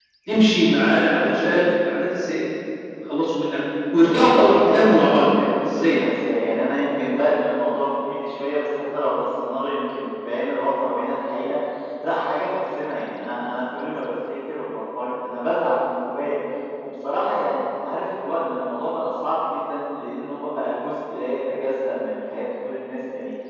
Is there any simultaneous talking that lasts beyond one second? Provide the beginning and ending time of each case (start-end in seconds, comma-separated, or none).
4.0-6.1